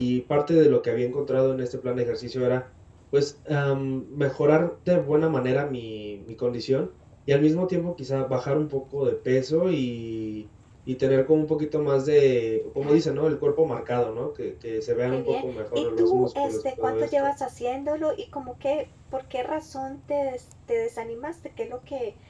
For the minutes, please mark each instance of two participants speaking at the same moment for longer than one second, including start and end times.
15.1-17.1

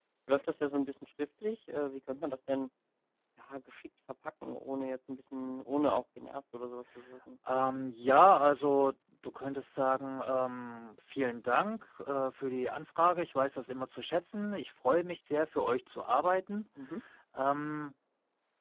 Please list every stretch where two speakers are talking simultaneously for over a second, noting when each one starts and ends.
none

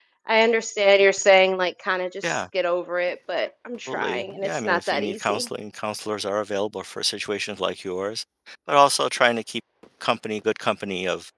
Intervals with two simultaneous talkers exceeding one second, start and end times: 3.9-5.5

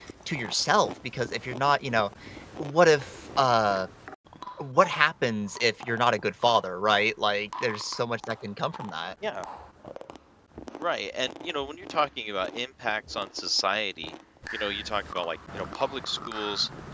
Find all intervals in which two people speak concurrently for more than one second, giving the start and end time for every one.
none

